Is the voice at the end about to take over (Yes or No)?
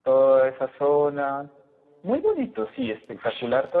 Yes